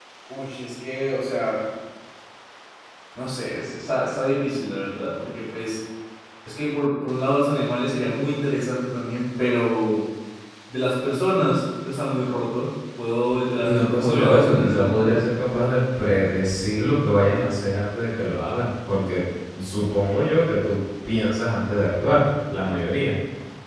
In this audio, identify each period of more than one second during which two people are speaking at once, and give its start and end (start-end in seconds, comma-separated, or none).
13.6-15.2